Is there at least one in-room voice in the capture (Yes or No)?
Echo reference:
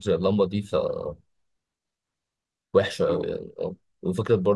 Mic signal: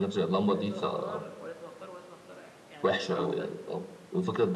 Yes